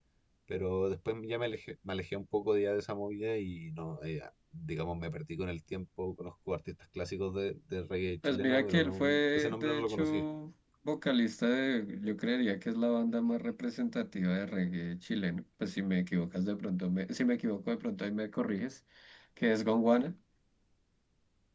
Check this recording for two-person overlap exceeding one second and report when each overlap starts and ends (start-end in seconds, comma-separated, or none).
8.2-10.2